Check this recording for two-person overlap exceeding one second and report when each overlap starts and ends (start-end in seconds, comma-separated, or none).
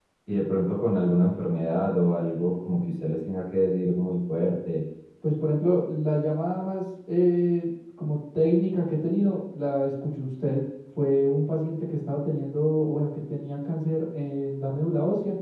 none